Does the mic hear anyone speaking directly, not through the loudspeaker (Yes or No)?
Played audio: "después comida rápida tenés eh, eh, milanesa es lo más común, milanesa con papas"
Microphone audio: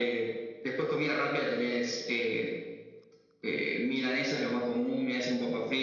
No